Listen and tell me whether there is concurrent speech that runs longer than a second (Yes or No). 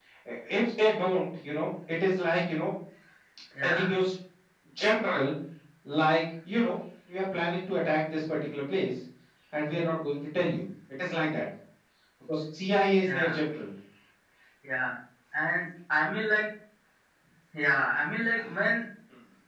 No